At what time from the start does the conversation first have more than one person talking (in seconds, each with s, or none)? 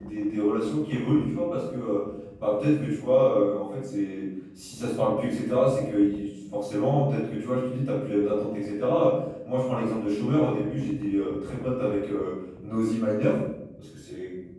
none